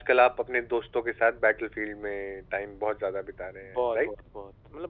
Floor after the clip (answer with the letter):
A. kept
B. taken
B